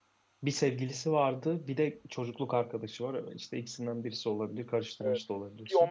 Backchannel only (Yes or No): No